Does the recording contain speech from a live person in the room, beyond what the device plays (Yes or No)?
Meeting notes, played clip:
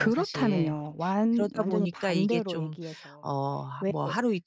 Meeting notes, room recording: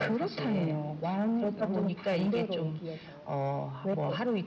No